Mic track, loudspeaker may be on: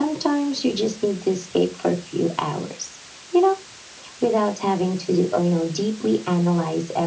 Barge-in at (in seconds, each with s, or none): none